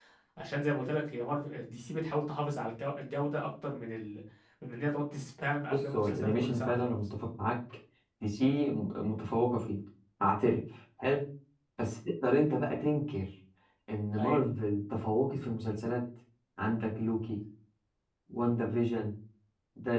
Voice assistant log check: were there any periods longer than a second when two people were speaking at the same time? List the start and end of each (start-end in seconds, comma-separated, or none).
5.7-6.9